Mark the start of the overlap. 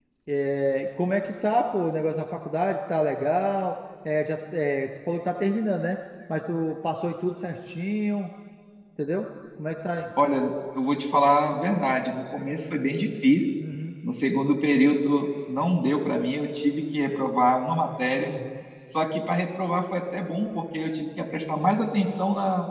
none

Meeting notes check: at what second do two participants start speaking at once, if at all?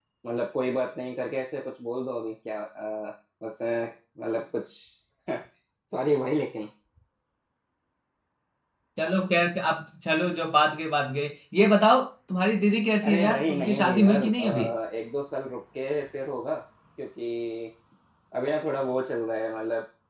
13 s

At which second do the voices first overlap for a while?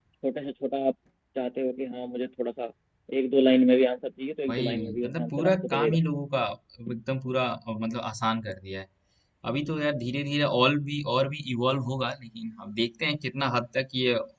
4 s

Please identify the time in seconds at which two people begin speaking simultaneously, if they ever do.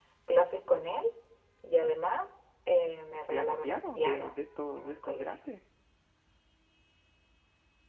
3 s

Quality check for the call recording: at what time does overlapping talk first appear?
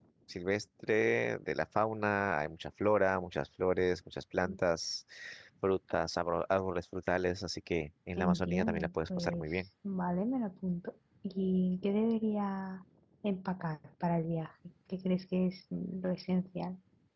8 s

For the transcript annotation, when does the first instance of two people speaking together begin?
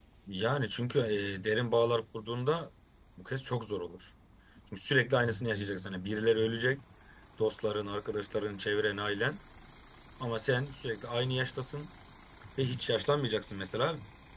none

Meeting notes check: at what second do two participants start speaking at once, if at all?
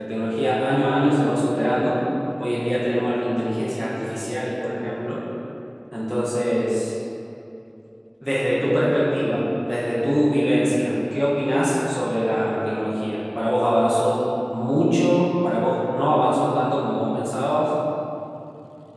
none

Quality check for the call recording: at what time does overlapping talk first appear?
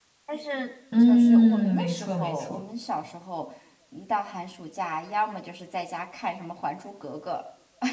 1 s

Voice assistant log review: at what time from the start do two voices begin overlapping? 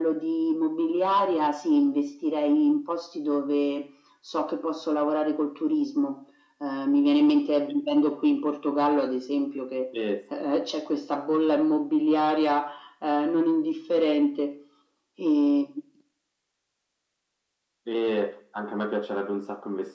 none

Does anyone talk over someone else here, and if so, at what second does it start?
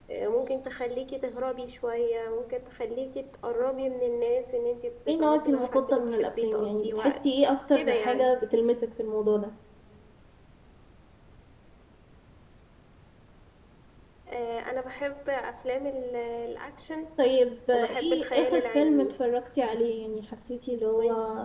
5 s

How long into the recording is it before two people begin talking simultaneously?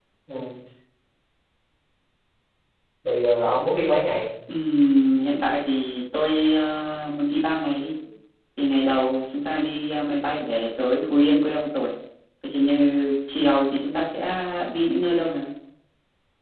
none

